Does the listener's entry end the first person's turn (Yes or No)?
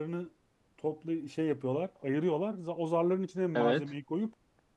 No